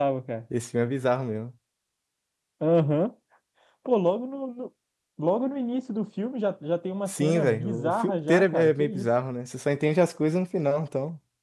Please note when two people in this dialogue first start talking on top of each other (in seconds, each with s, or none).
7.1 s